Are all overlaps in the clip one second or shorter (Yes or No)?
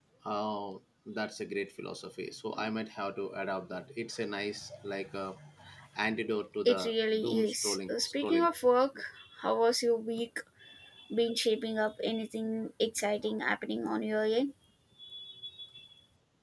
No